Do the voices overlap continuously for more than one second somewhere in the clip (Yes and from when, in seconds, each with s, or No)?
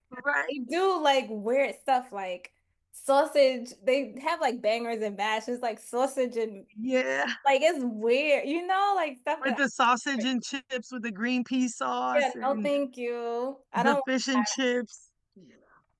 No